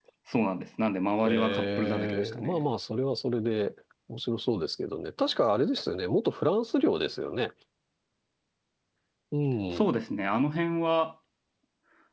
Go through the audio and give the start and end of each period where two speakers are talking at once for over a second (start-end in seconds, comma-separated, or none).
1.2-2.6